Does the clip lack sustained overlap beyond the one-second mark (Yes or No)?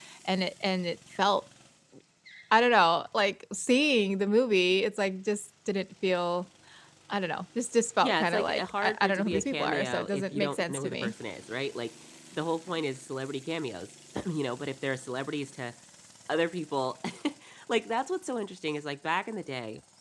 No